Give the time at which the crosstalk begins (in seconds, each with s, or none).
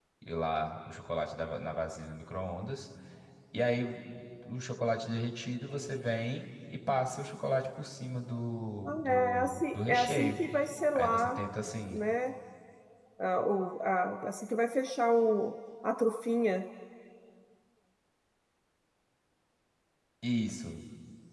8.8 s